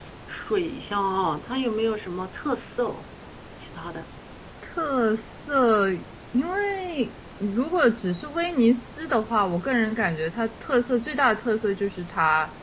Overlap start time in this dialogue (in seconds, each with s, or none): none